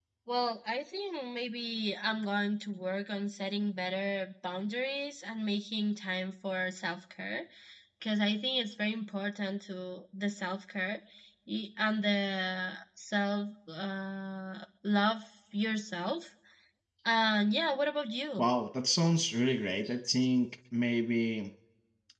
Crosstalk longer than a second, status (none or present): none